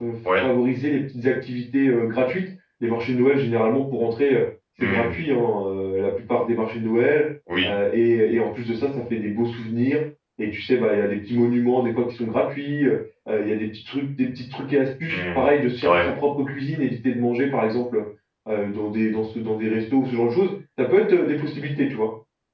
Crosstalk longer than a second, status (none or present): none